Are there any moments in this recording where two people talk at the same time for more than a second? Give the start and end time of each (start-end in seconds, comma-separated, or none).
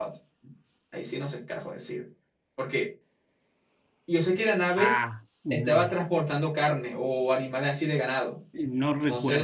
none